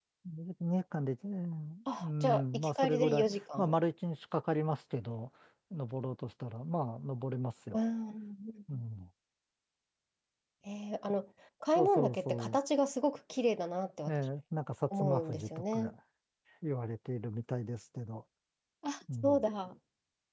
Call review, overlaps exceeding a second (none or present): present